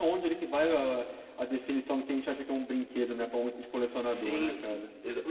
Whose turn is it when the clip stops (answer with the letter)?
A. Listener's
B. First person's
A